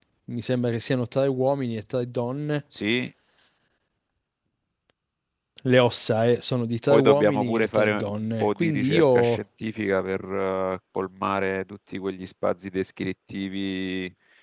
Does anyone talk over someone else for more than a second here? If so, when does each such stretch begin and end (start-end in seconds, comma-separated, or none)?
6.9-9.4